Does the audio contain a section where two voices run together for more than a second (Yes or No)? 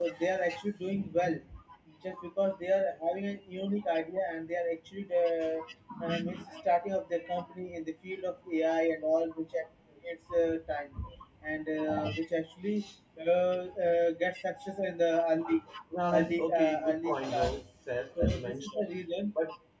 Yes